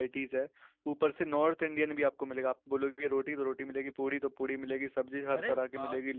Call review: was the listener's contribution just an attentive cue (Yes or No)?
Yes